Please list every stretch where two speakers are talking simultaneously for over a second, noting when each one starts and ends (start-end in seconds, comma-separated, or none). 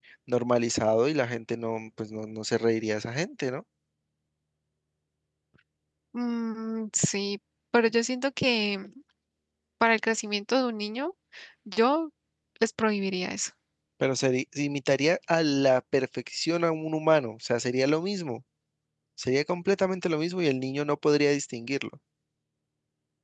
none